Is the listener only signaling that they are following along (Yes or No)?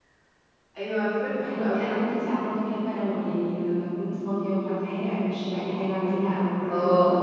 Yes